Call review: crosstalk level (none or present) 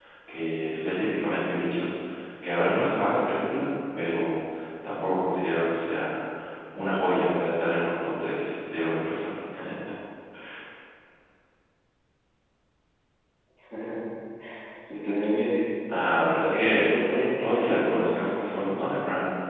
present